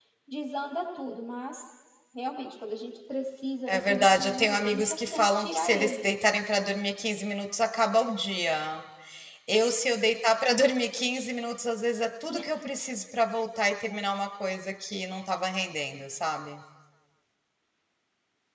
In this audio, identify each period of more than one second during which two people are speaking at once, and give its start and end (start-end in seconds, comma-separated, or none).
3.7-6.1